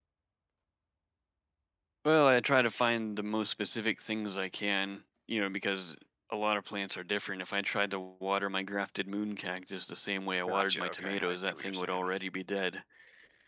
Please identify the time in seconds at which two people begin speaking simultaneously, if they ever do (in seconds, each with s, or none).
10.5 s